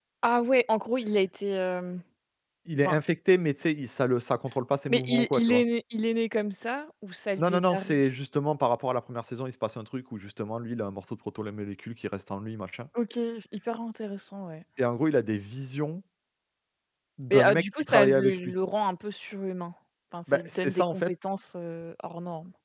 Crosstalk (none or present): present